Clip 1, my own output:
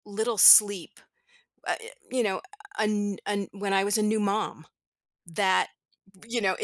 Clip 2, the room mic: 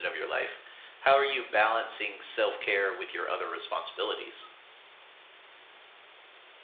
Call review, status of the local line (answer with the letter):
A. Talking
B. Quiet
A